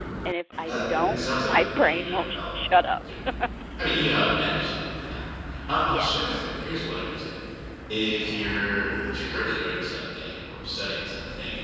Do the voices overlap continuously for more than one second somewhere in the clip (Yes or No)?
Yes